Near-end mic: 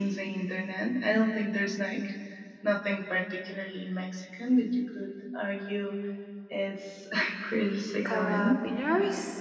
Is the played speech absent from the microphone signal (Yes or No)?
No